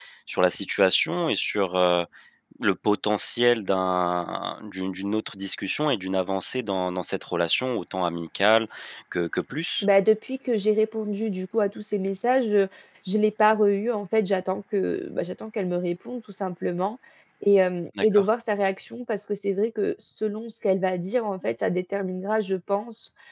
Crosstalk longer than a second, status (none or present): none